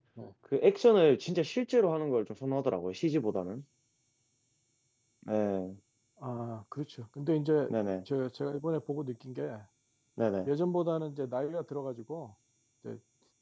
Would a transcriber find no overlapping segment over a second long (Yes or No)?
Yes